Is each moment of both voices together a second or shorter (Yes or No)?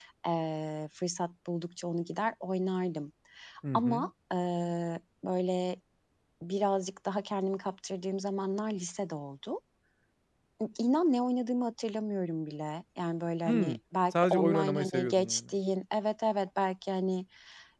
No